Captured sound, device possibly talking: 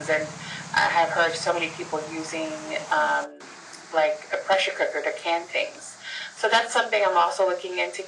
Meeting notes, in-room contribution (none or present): none